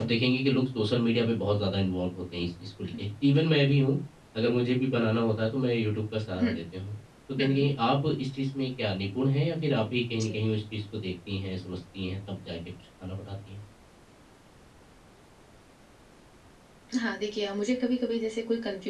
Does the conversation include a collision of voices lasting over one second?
No

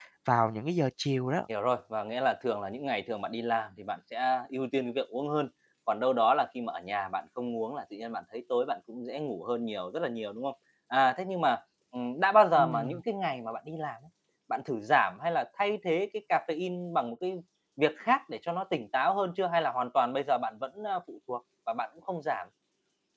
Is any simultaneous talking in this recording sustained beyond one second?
No

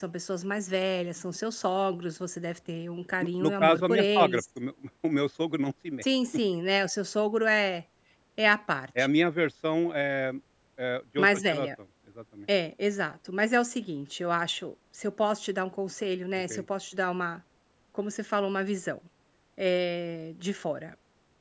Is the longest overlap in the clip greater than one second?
Yes, from 3.2 s

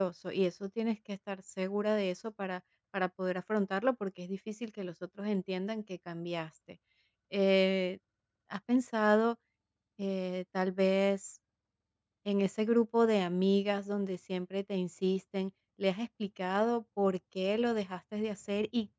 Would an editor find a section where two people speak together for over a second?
No

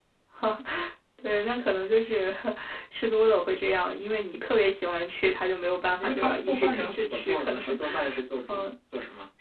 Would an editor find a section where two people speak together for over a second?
Yes, from 6.0 s

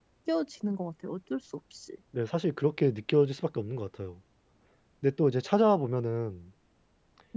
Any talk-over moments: No

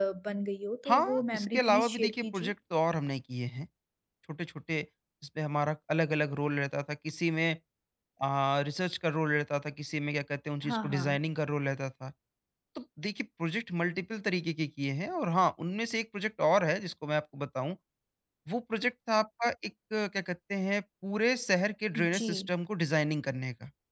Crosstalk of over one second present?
Yes, from 0.9 s

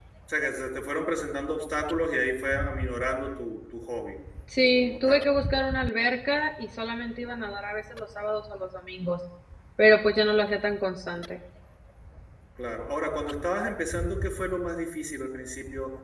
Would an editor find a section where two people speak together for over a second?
No

